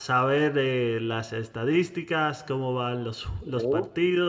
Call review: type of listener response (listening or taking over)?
listening